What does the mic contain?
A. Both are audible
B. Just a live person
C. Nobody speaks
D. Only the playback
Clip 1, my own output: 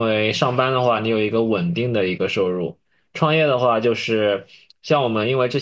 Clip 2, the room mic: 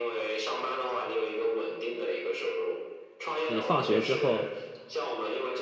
A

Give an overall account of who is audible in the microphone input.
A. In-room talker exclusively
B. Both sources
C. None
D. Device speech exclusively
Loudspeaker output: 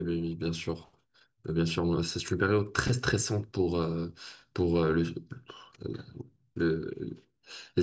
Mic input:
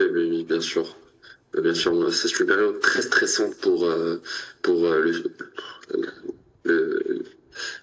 D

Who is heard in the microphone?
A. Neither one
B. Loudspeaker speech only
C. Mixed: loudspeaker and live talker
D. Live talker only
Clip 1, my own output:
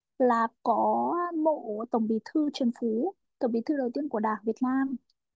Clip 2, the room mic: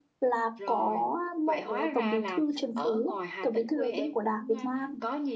C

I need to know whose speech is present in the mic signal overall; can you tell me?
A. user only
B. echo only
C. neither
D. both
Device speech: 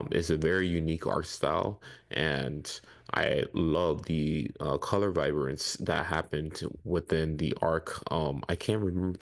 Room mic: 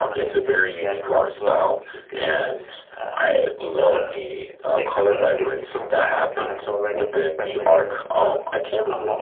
D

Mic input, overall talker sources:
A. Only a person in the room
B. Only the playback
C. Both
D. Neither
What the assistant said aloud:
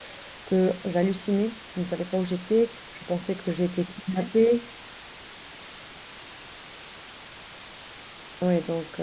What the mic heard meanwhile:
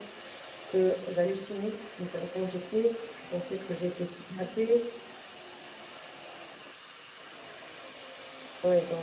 B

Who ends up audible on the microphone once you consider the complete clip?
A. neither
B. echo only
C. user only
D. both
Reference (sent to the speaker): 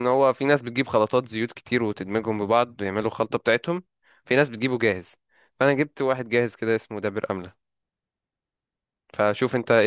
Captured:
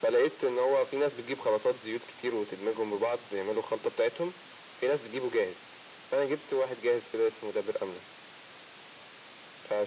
B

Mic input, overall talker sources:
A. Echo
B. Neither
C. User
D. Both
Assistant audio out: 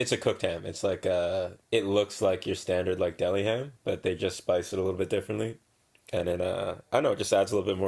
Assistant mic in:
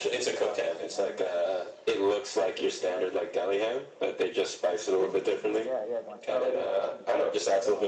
D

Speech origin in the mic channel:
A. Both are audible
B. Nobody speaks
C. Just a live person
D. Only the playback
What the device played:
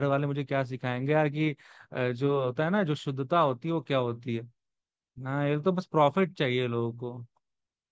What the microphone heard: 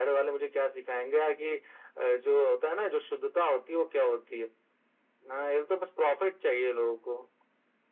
D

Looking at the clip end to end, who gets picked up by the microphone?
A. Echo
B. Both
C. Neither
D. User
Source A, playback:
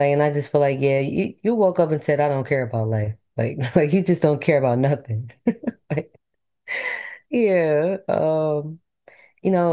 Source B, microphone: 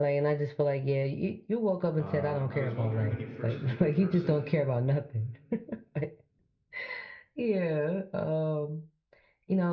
B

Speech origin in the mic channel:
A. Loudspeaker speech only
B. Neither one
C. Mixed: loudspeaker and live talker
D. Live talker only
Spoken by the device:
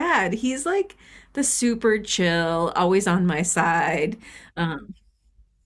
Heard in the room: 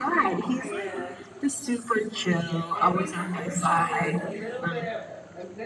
C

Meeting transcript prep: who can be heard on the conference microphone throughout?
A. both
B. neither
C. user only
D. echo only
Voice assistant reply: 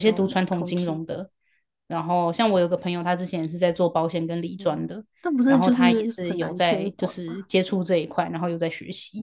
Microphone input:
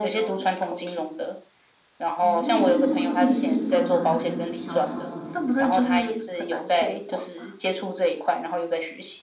A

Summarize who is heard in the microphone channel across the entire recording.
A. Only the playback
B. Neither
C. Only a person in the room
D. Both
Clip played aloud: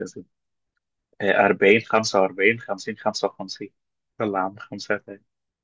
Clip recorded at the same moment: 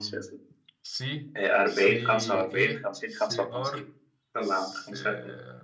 D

